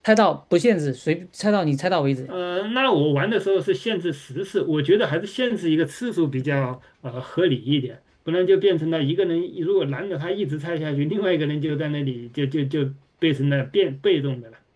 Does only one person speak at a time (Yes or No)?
Yes